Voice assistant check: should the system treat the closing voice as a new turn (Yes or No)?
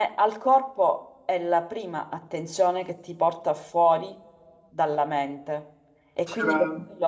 No